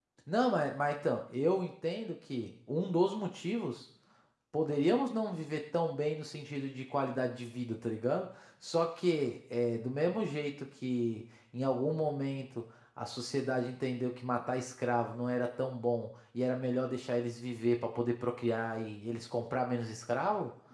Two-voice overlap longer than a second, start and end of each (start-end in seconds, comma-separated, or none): none